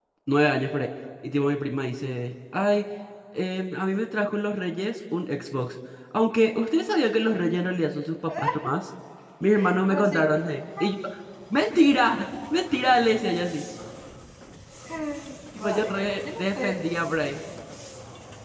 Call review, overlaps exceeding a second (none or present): present